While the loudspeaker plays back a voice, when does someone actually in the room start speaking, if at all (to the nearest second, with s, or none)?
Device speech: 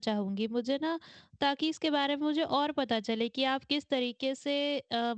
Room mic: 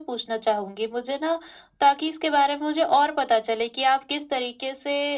none